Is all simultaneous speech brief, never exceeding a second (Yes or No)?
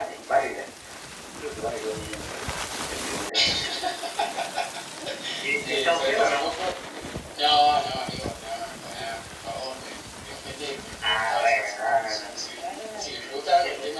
No